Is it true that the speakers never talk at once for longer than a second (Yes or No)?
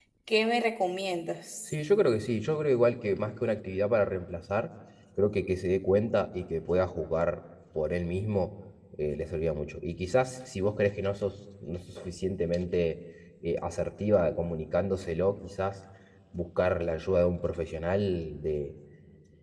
Yes